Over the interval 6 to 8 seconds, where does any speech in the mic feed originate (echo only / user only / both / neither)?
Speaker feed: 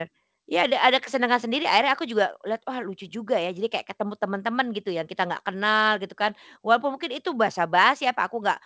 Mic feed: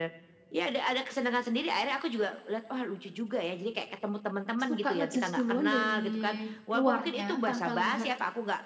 both